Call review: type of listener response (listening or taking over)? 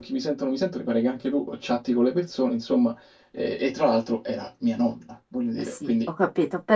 taking over